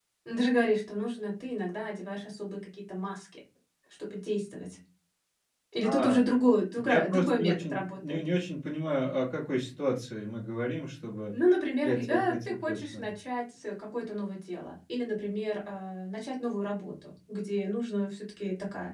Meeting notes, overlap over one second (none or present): present